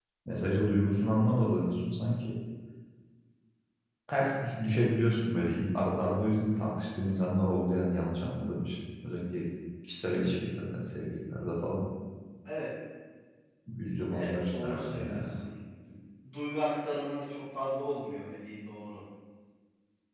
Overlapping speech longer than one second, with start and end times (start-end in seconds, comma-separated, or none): 14.1-15.4